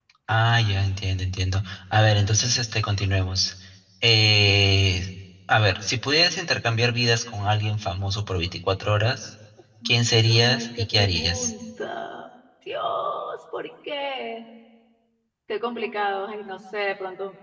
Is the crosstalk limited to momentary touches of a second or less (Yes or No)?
No